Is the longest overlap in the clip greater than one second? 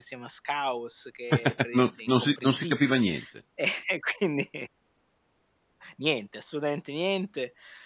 Yes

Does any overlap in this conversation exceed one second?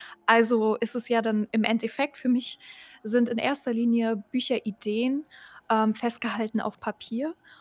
No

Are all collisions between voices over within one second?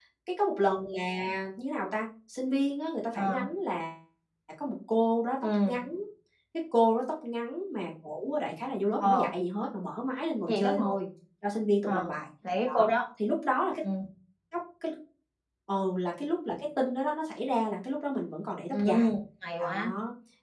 Yes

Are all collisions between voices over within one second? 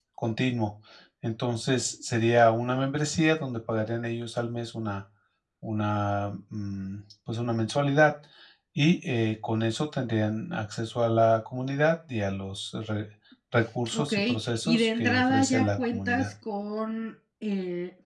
No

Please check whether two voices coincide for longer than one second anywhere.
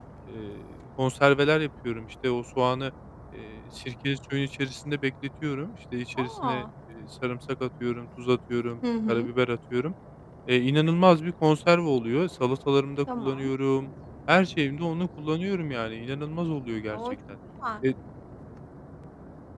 No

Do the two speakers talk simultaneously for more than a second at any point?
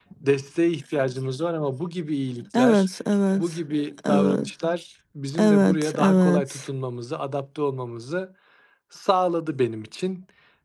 Yes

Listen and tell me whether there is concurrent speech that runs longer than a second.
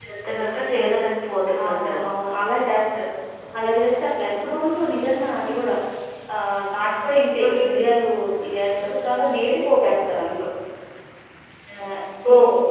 No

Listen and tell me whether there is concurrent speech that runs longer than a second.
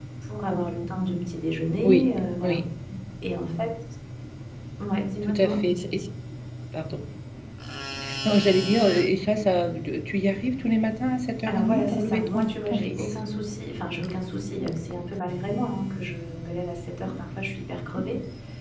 Yes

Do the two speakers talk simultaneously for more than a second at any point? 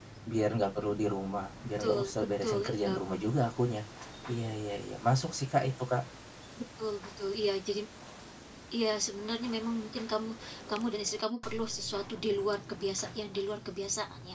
Yes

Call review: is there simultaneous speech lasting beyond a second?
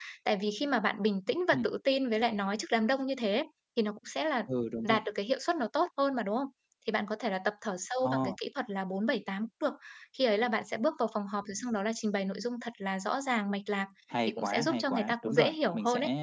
Yes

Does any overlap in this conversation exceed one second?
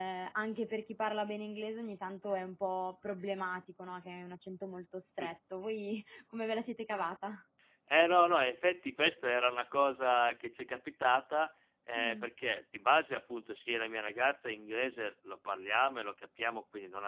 No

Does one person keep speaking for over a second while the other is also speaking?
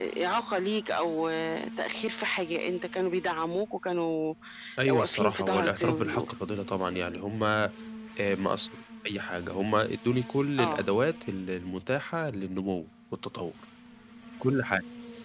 Yes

